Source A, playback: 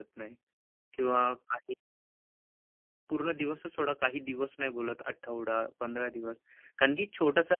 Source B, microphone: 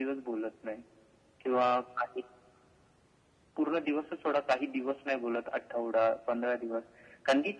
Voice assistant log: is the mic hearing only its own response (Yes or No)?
Yes